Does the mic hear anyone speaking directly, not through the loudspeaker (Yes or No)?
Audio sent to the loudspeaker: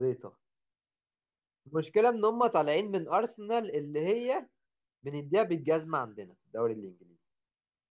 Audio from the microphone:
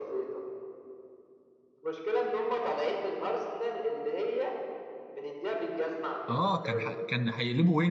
Yes